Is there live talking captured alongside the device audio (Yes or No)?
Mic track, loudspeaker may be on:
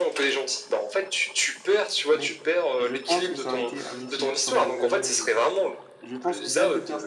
Yes